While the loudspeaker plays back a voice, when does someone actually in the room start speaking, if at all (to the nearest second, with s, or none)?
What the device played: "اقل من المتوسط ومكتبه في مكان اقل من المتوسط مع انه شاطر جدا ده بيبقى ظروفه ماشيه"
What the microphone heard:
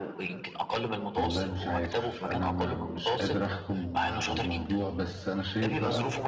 1 s